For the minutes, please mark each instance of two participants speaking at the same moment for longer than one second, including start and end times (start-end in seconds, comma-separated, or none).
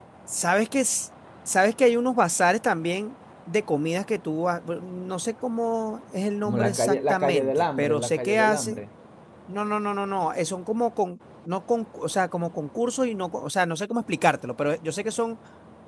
6.4-8.8